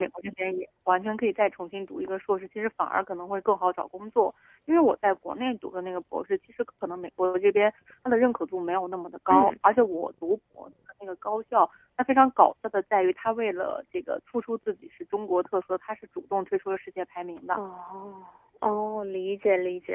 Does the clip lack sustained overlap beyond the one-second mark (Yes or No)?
Yes